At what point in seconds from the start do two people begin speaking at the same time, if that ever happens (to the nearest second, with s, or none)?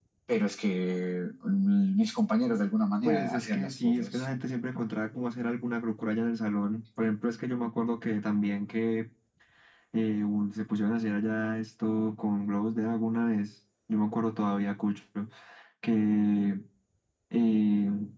3 s